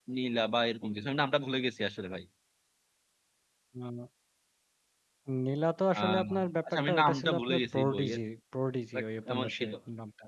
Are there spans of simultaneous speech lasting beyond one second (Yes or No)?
Yes